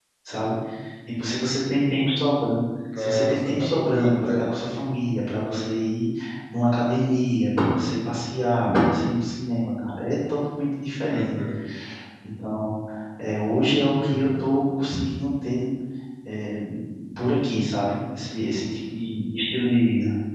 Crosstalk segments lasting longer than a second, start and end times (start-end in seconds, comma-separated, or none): 3.0-4.4